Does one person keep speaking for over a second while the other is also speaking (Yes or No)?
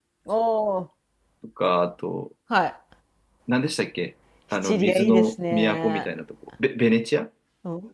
Yes